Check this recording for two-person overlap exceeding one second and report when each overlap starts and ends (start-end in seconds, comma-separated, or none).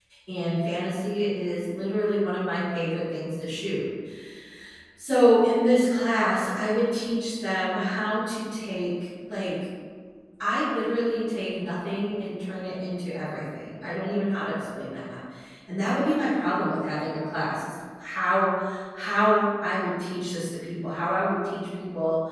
none